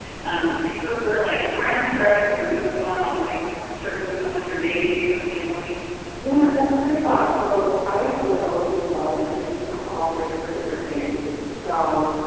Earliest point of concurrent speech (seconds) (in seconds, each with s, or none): none